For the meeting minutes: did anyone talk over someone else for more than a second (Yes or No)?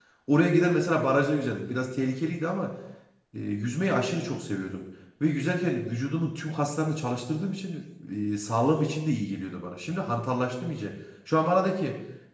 No